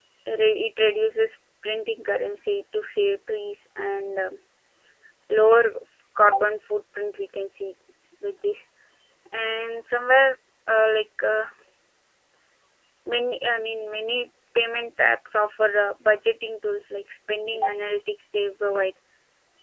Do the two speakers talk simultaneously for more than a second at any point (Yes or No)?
No